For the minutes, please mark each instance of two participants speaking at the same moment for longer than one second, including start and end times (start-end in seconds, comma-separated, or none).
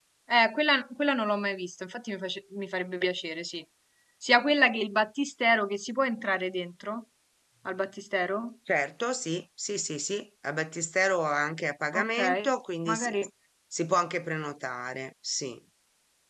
none